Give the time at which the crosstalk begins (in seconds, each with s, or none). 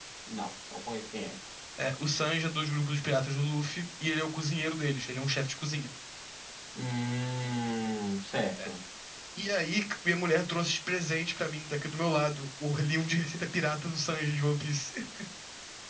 none